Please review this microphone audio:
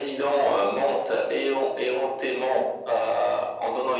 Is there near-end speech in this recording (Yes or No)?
No